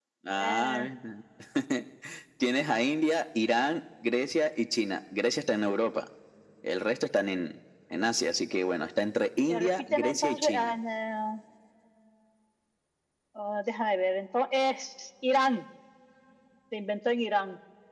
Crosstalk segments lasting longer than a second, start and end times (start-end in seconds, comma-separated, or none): 9.5-10.8